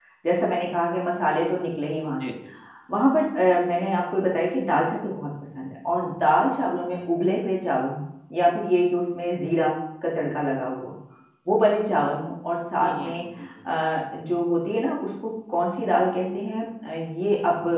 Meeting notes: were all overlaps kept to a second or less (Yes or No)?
Yes